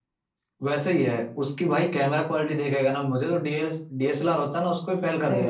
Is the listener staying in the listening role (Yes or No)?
No